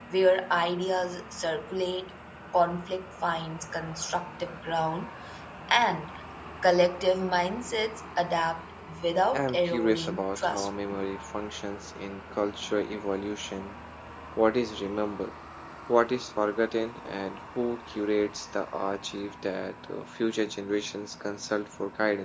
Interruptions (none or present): present